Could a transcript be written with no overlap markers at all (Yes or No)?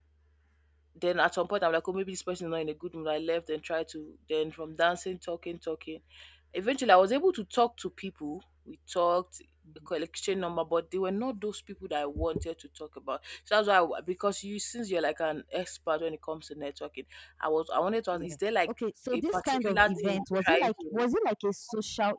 No